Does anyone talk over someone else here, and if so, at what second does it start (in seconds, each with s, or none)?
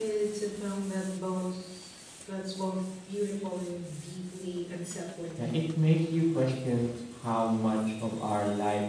none